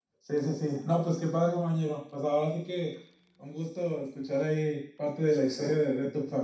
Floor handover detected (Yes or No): No